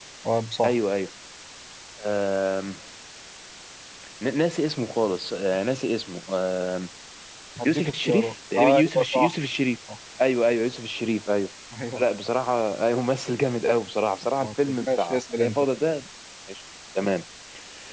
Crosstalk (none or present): present